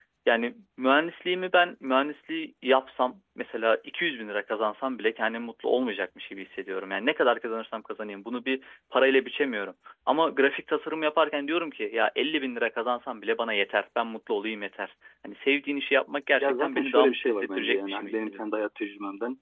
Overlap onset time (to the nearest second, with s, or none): 16 s